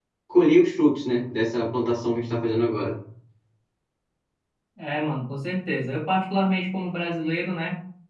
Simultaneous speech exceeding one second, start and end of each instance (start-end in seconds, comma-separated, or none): none